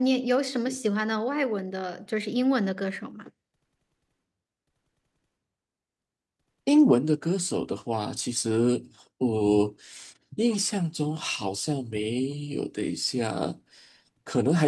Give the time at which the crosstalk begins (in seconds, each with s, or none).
none